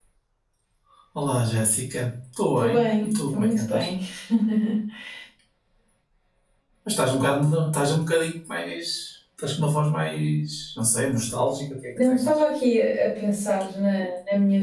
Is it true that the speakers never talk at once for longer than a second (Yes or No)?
No